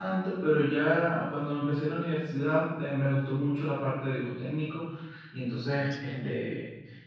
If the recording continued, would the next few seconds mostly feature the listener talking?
No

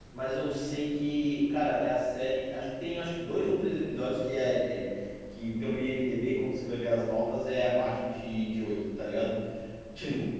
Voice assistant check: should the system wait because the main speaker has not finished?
Yes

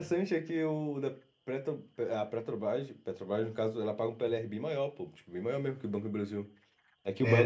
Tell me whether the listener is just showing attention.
Yes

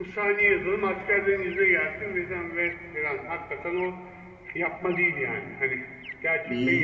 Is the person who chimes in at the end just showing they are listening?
No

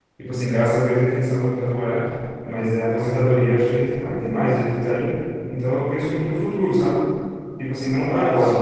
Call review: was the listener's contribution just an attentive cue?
Yes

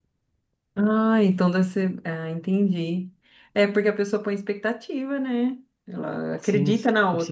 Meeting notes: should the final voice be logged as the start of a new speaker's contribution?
Yes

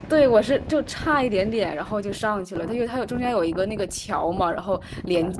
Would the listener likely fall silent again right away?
Yes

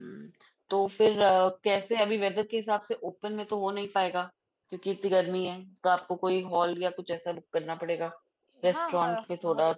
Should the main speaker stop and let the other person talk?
Yes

